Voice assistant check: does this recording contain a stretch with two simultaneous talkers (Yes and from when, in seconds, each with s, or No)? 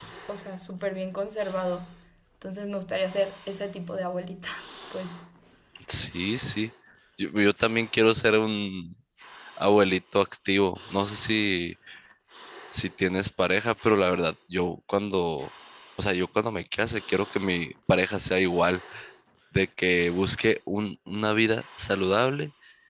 No